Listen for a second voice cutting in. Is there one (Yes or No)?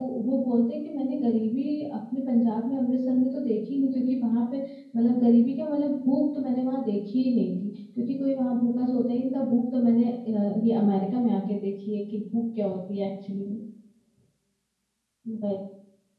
No